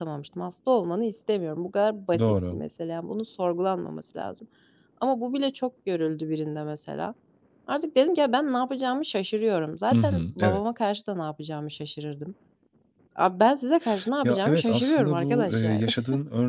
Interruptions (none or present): present